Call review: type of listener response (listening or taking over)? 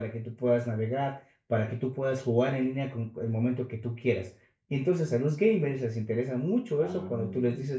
listening